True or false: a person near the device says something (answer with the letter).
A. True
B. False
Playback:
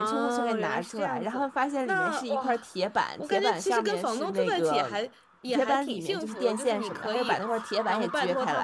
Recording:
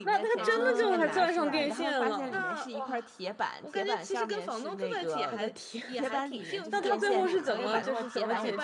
A